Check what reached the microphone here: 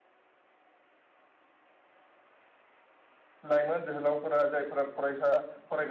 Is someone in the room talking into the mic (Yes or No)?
Yes